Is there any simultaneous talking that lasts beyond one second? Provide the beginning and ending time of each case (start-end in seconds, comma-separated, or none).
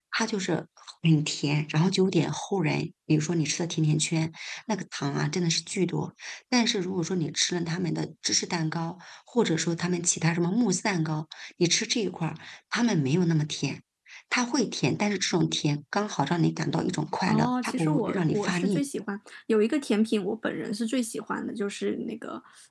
17.3-18.9